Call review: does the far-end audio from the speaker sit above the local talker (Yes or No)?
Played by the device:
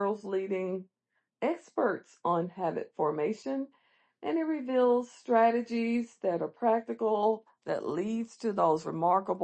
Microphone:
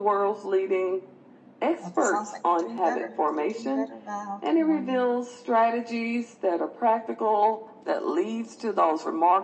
Yes